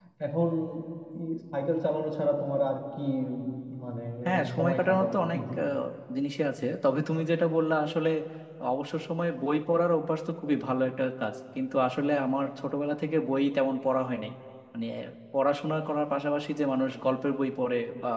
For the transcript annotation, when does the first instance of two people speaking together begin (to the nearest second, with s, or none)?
4 s